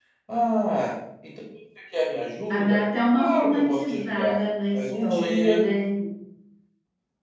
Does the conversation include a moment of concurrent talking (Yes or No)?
Yes